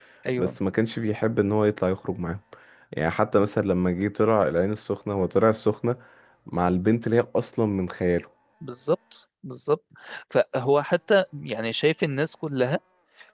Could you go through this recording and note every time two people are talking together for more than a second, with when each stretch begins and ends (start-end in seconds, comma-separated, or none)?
none